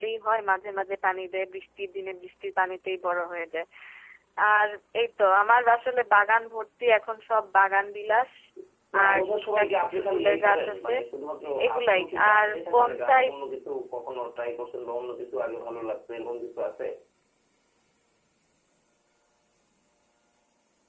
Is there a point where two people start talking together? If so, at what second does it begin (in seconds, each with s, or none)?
9.0 s